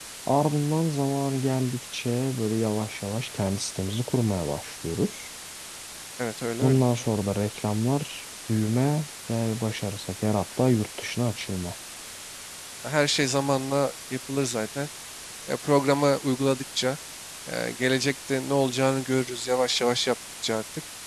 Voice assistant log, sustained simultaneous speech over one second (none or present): none